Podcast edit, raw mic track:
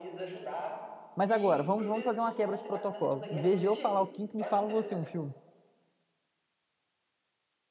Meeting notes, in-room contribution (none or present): present